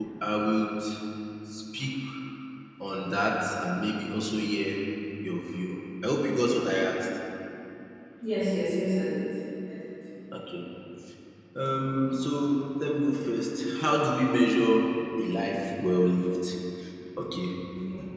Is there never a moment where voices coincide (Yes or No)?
Yes